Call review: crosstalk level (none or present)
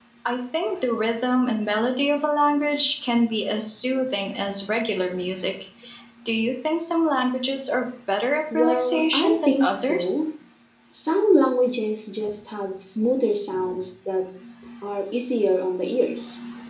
present